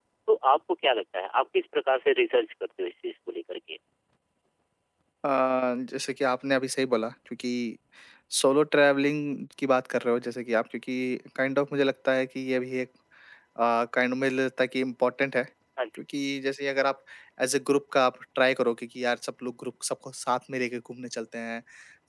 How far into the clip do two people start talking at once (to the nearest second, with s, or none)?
none